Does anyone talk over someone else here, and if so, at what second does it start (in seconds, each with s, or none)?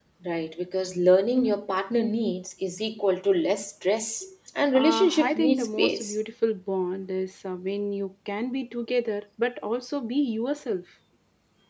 4.7 s